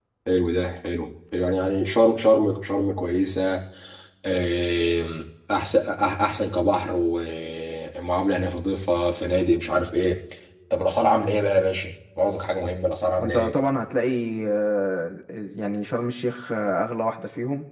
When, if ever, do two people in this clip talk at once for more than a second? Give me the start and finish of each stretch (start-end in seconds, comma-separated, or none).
none